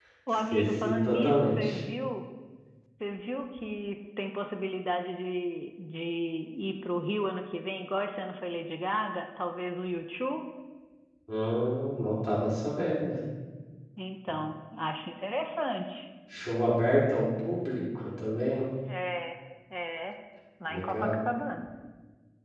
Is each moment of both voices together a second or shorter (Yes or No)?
No